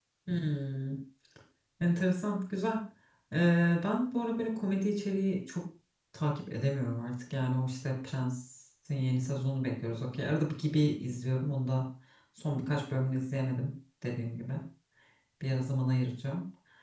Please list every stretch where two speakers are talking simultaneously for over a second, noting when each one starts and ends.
none

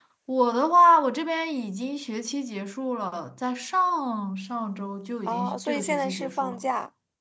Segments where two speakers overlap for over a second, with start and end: 5.3-6.7

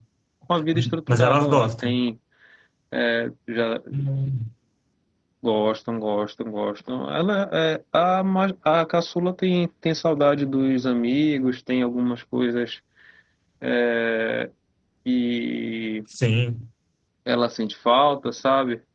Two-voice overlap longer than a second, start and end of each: 0.7-2.0

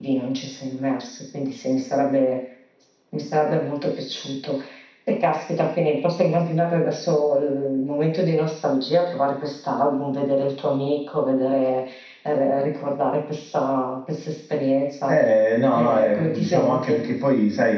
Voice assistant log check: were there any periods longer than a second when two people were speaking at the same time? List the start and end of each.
15.7-17.0

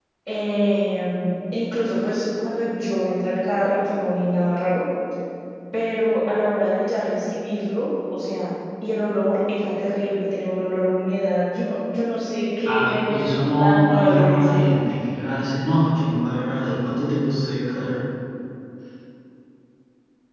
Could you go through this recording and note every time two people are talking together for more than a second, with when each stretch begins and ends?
12.6-14.6

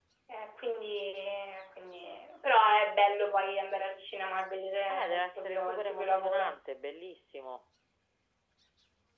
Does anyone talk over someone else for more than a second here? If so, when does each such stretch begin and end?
4.9-6.6

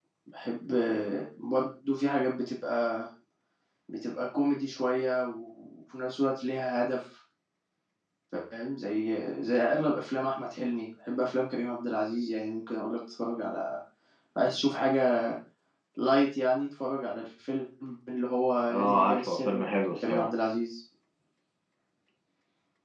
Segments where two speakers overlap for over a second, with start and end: 18.7-20.3

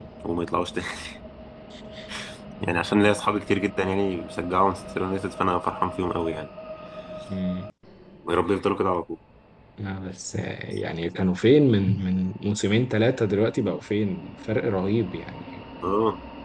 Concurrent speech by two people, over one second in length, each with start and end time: none

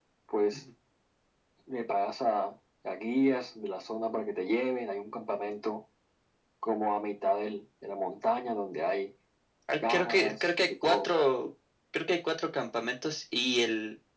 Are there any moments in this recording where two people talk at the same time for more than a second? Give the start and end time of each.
9.9-11.1

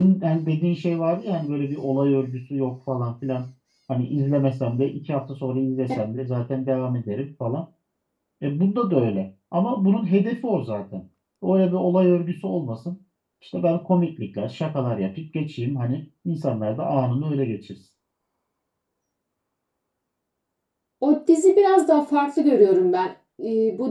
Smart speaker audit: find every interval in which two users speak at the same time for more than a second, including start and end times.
none

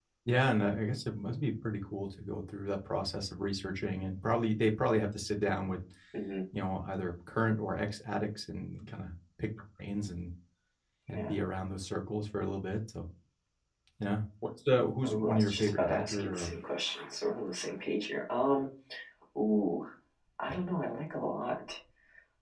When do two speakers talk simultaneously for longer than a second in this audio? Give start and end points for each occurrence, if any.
15.0-16.5

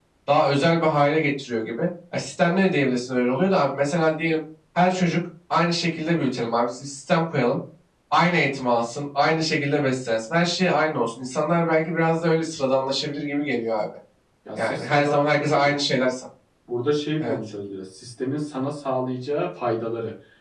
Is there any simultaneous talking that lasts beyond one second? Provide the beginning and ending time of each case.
14.6-15.8

